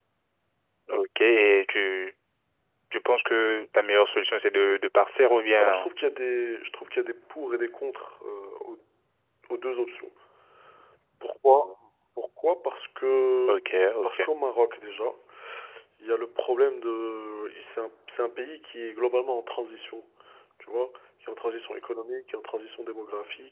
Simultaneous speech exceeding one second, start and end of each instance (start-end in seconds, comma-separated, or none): none